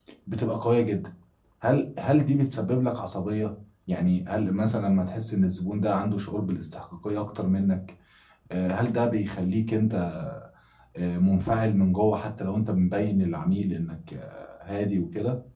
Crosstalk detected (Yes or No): No